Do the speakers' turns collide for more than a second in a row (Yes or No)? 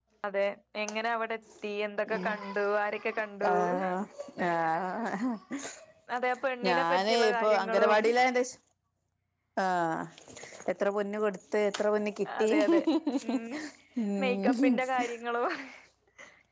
Yes